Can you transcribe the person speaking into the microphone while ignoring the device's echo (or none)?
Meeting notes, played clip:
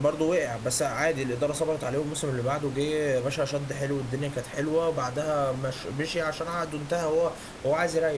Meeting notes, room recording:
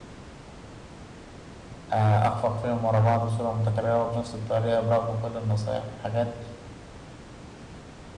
آه، أخفق فيهم ورا بعض بصورة متكررة وبنفس الطريقة برغم كل النصايح والحاجات